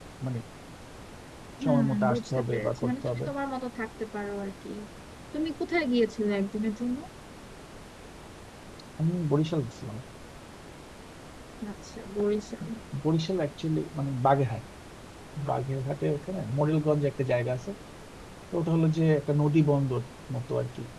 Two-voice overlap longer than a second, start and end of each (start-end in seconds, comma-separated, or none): 1.6-3.2